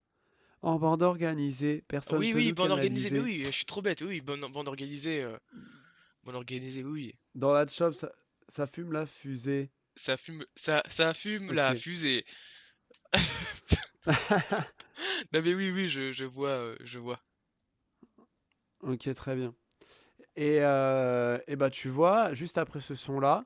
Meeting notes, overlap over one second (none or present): present